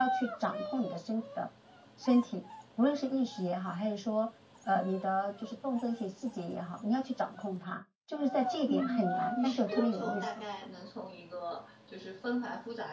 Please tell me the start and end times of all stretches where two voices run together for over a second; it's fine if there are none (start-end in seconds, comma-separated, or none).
8.6-10.2